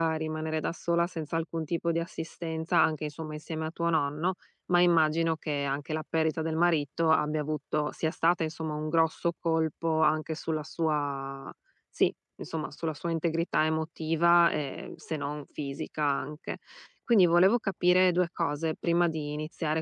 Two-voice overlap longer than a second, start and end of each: none

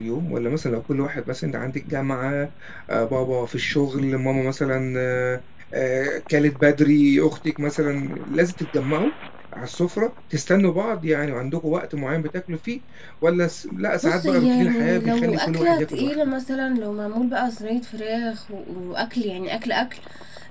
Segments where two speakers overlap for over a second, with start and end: 14.0-16.2

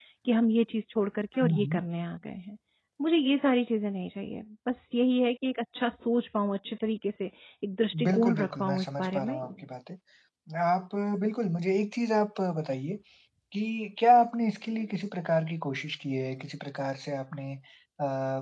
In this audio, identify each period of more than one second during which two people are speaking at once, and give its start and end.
8.0-9.4

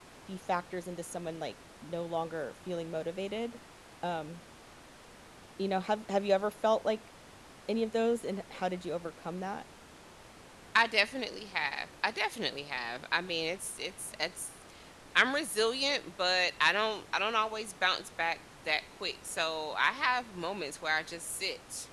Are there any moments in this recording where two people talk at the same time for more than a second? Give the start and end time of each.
none

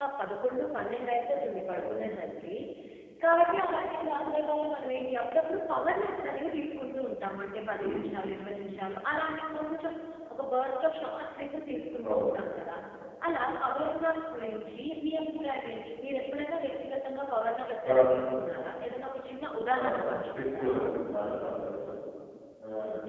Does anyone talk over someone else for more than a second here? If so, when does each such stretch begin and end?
none

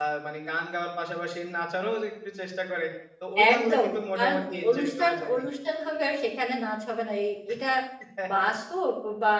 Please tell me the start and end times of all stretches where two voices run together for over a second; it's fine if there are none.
3.5-5.4

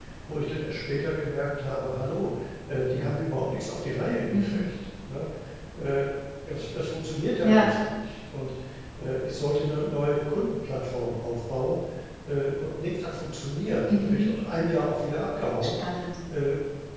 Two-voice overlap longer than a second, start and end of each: none

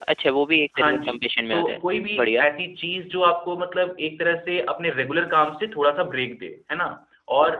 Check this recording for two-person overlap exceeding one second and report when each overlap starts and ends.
none

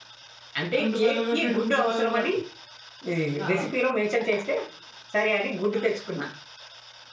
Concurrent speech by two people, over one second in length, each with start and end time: 0.8-2.2

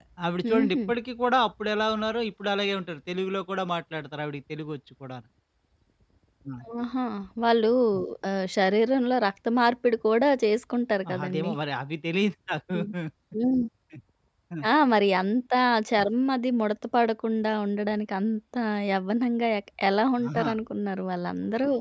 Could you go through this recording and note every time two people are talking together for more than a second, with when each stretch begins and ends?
none

